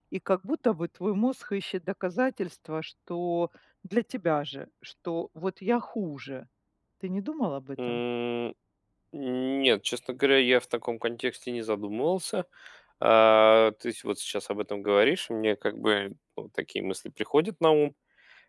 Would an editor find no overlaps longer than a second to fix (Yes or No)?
Yes